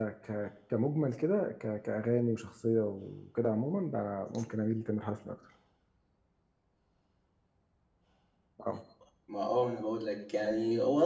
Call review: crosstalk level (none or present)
none